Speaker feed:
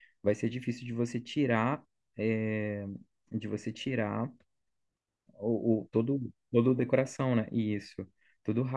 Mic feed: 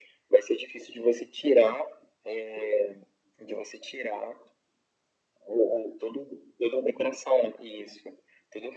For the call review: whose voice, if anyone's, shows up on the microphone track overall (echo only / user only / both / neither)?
echo only